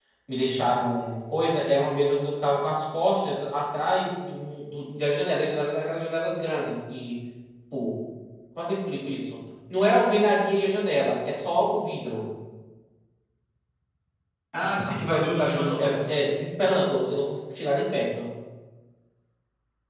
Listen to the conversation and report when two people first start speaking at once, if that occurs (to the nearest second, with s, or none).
15 s